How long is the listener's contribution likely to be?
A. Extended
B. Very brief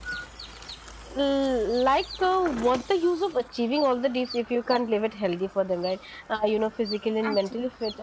B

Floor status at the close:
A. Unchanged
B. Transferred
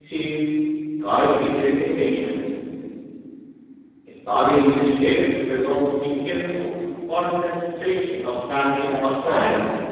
B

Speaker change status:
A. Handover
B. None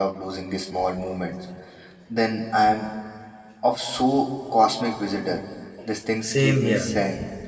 A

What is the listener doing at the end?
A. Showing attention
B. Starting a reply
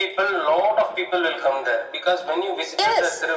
A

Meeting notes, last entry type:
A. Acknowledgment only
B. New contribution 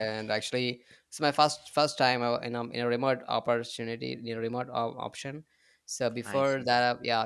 A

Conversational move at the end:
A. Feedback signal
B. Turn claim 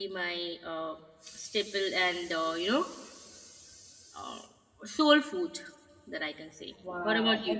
B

